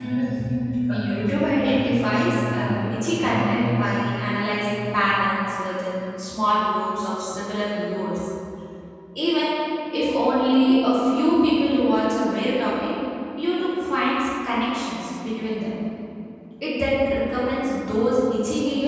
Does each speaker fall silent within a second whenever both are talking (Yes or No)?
No